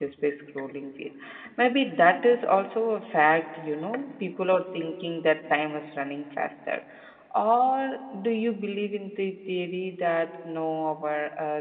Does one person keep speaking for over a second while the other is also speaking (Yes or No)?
No